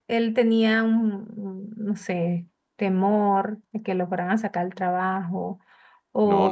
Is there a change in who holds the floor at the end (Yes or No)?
No